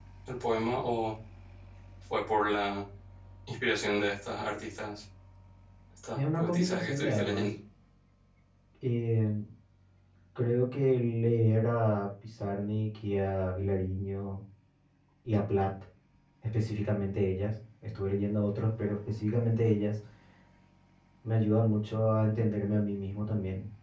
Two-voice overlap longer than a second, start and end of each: 6.1-7.5

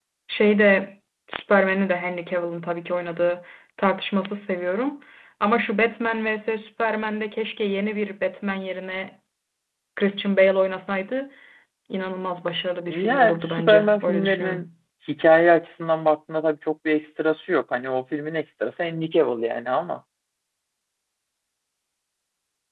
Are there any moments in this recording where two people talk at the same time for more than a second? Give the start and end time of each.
12.9-14.7

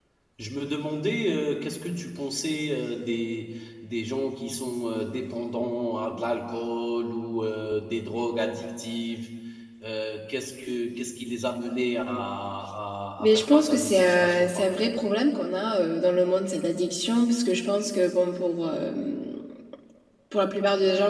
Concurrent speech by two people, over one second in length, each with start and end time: 13.2-14.8

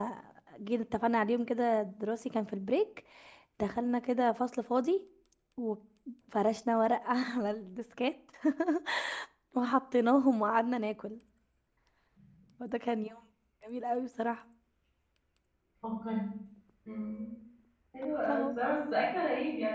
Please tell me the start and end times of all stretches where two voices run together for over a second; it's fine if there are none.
none

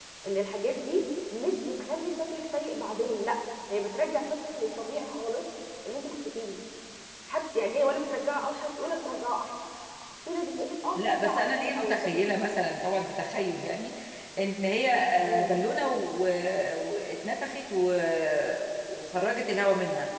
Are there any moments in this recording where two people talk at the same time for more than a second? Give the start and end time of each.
11.0-12.2

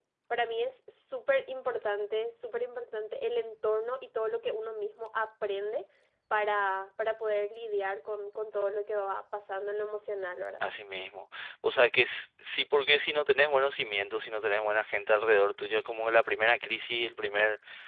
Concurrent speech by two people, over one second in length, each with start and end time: none

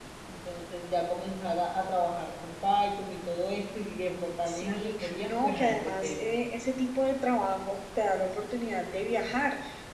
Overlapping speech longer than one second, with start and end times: 4.5-6.3

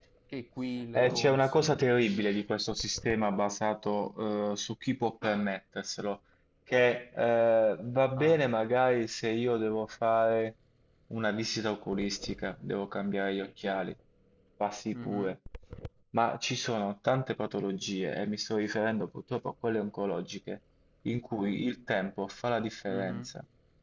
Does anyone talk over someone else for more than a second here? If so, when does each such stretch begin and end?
0.9-2.4

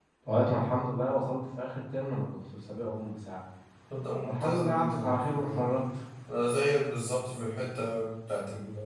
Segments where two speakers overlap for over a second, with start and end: 4.2-5.7

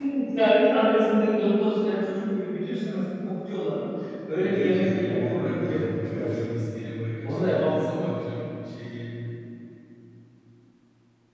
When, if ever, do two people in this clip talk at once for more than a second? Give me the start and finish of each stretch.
4.4-6.3

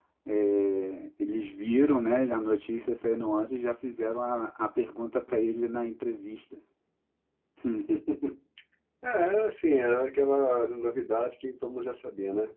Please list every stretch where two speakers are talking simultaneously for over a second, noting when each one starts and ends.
none

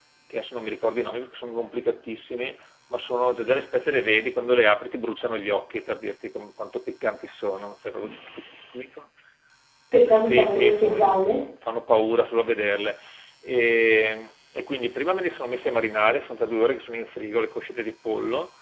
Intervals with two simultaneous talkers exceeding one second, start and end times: 10.1-11.4

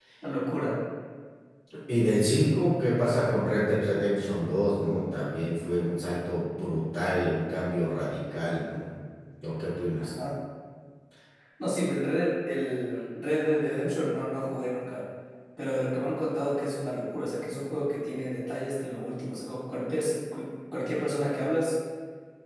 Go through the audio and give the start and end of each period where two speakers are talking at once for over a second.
none

